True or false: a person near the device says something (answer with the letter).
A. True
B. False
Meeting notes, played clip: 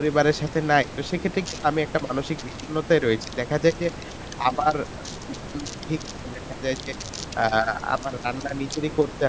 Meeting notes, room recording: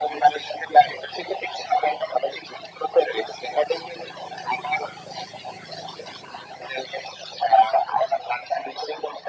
B